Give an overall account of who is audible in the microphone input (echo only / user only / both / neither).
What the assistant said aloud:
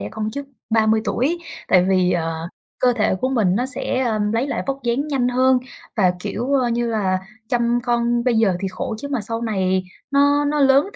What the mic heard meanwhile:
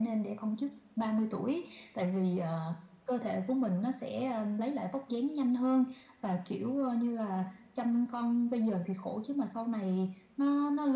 echo only